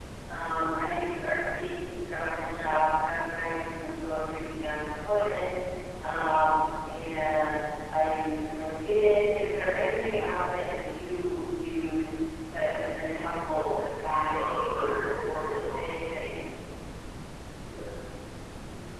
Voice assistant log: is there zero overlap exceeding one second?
No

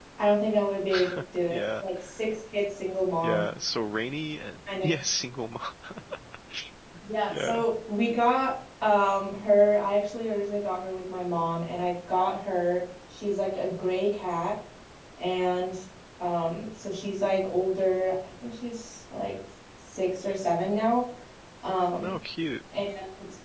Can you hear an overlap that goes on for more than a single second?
No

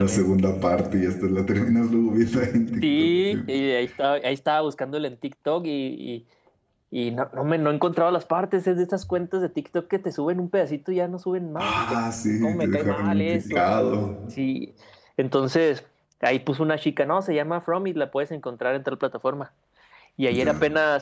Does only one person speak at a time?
No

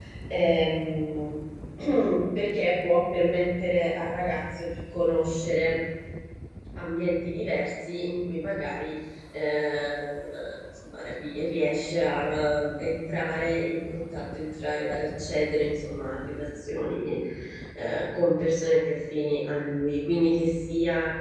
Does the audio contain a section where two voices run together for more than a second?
No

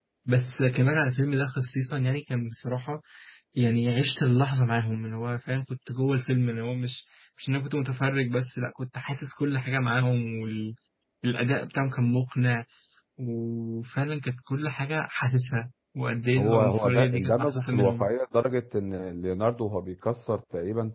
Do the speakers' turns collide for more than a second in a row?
Yes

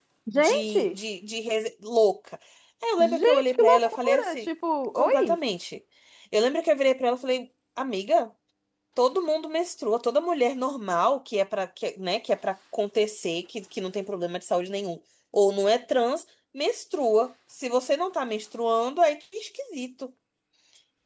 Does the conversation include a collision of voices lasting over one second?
Yes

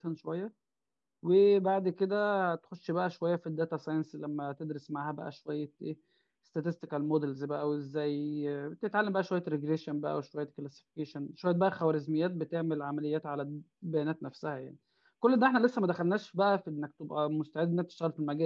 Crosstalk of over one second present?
No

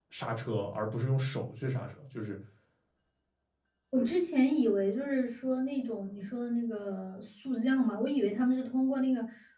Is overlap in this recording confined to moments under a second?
Yes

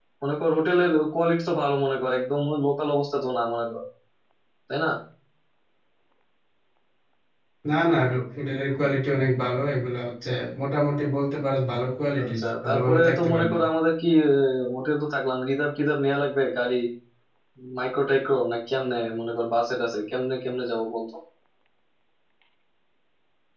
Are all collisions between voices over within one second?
No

